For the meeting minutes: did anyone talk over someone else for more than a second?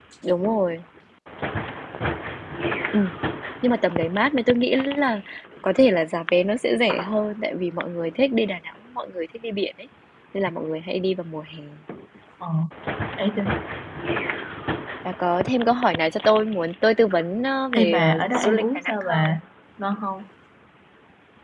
Yes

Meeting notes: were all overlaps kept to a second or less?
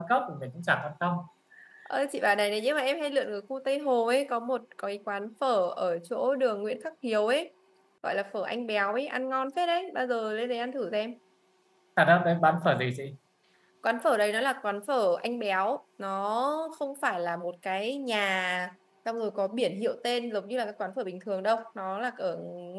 Yes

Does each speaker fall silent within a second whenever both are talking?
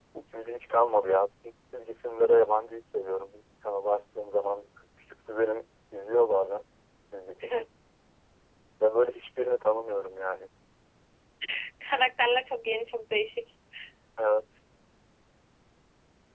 Yes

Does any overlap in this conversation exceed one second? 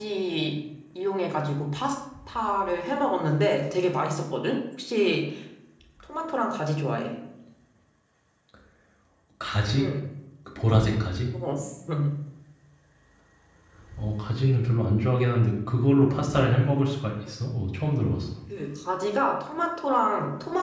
No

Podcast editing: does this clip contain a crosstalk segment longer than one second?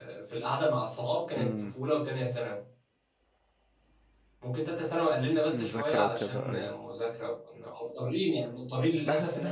Yes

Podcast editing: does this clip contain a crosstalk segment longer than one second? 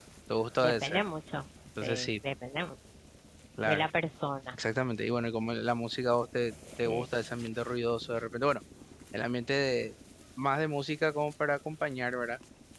No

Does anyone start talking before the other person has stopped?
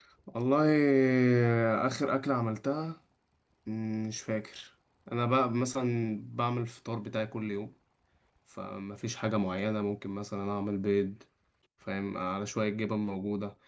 No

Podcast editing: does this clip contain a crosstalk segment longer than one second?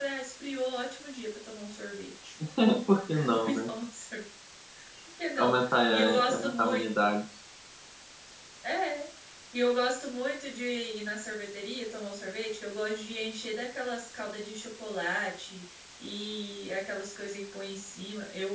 Yes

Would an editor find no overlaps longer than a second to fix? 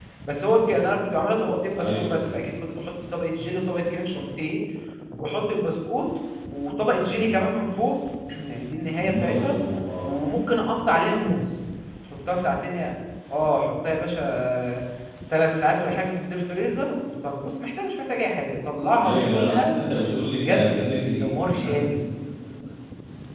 No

